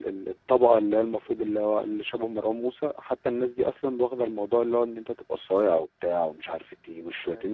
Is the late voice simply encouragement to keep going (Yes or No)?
No